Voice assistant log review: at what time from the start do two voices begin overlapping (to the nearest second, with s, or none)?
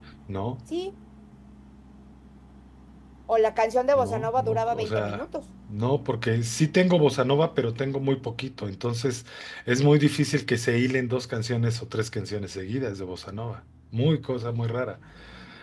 4 s